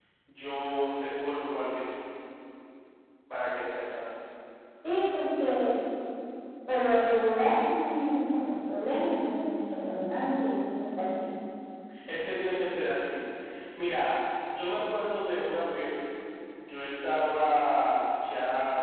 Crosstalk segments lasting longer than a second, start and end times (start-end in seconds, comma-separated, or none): none